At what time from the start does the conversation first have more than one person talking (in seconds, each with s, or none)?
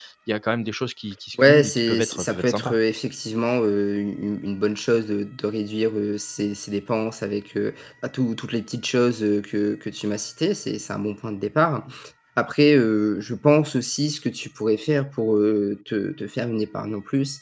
1.4 s